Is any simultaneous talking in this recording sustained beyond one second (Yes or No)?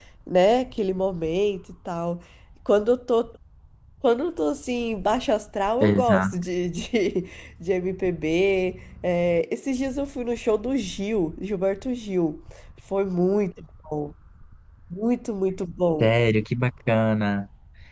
No